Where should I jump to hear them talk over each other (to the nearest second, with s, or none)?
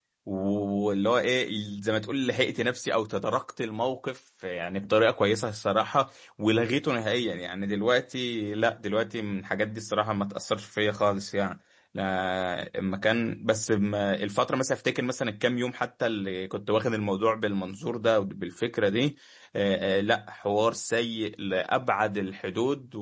none